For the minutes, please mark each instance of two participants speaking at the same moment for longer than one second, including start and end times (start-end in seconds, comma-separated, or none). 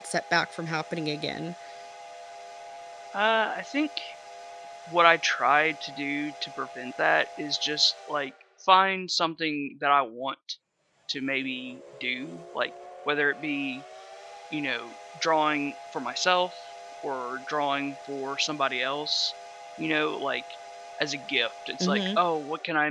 none